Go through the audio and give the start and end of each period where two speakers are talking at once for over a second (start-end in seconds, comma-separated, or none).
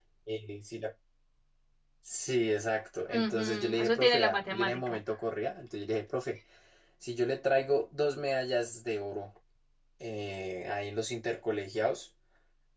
3.1-5.0